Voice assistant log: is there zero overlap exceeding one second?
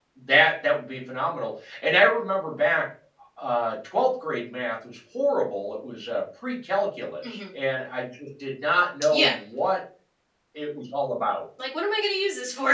Yes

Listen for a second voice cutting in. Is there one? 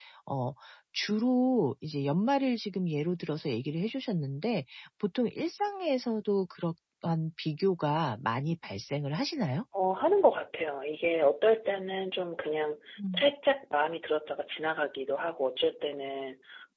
No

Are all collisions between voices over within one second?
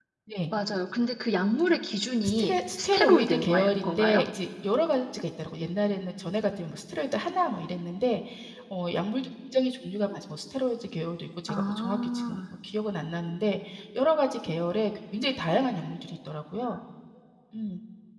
No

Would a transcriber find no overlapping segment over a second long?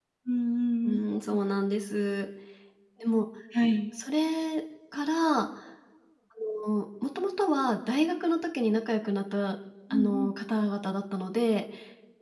Yes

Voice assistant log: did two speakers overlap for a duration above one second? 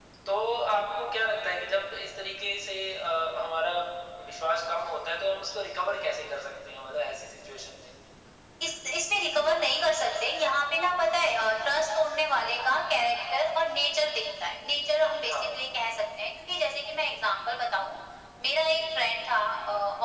No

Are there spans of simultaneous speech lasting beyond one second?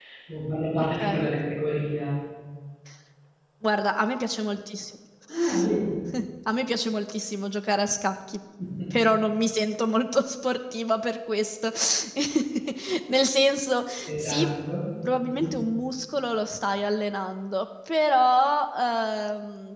No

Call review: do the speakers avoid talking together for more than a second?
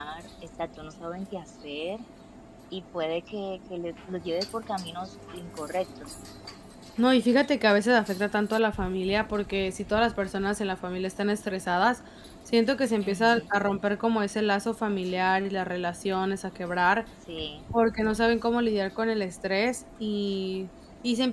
Yes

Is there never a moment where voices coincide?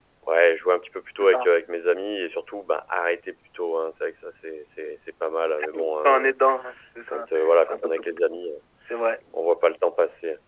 No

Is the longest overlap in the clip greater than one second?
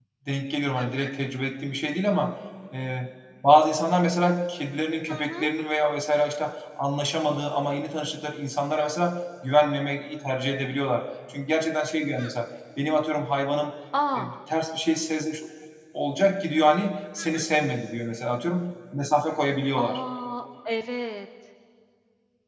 No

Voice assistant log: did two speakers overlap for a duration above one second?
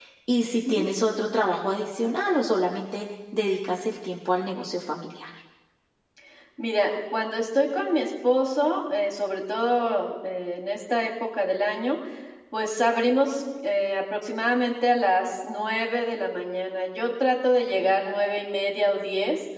No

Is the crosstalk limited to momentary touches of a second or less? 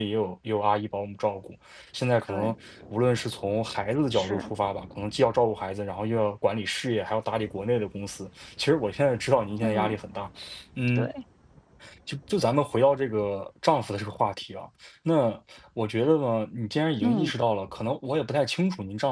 Yes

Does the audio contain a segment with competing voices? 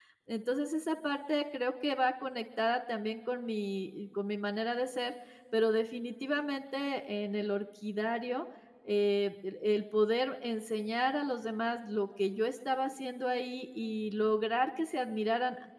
No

